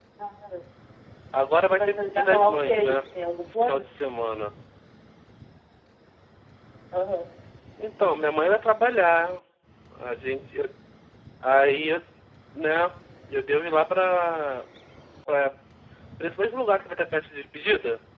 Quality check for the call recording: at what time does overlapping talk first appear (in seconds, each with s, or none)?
1.7 s